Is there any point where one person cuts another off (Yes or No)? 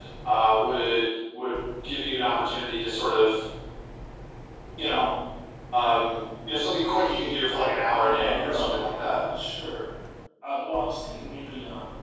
Yes